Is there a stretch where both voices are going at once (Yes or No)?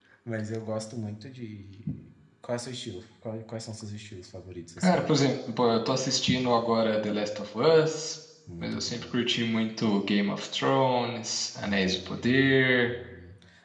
Yes